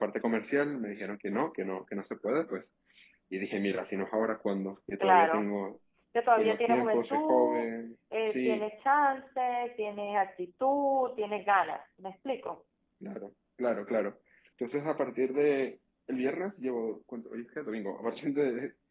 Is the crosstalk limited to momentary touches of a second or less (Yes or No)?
No